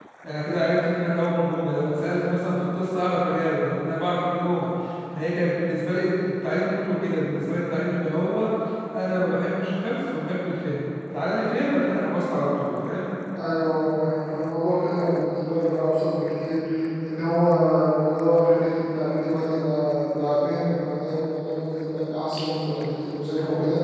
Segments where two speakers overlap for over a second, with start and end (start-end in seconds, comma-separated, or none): none